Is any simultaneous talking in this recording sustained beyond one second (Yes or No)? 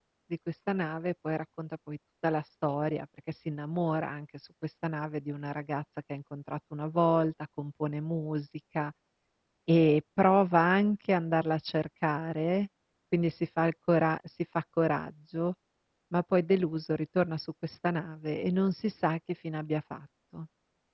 No